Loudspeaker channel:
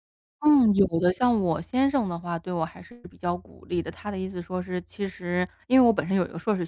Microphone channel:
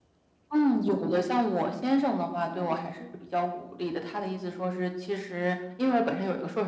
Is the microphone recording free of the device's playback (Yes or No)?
No